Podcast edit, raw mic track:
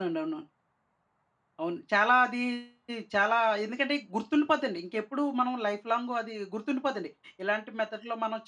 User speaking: Yes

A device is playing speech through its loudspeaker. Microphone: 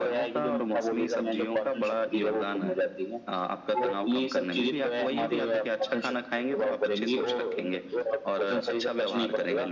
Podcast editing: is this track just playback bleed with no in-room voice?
Yes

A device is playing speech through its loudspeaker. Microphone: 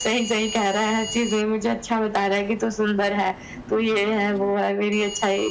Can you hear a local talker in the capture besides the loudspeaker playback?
No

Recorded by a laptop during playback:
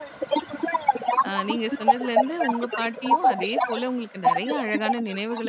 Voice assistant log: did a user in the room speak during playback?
Yes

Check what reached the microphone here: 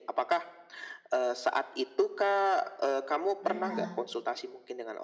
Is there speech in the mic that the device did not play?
Yes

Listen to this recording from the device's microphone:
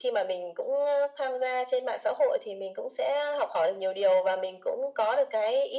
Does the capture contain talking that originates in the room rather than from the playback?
No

